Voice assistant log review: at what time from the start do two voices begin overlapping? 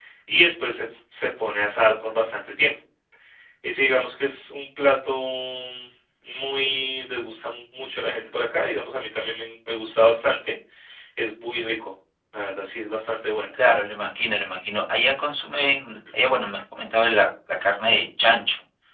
none

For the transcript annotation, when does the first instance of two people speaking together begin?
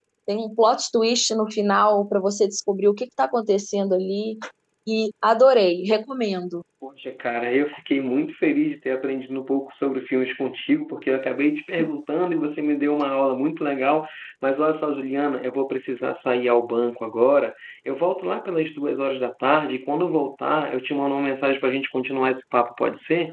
none

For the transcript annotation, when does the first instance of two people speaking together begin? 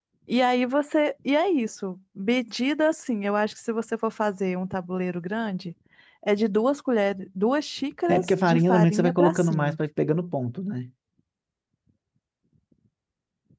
8.1 s

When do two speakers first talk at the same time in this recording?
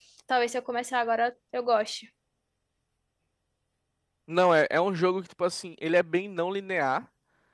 none

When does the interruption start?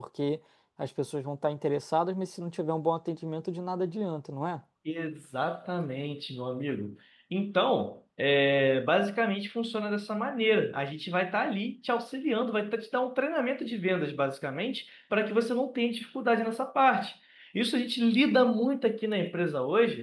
none

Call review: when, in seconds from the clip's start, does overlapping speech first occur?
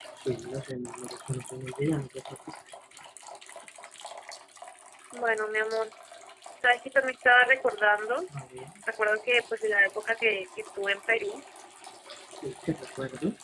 none

